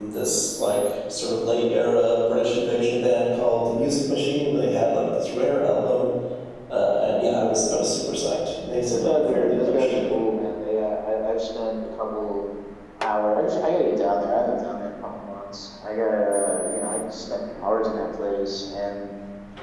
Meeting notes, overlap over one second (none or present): present